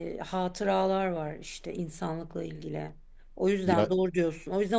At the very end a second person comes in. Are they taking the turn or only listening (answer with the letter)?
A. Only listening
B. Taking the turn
A